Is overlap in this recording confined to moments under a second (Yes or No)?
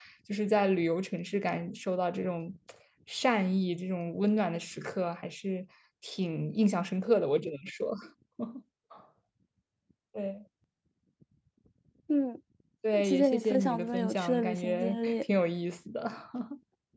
No